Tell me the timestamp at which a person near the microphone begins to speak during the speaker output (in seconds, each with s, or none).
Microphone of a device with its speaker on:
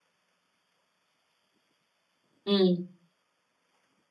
2.5 s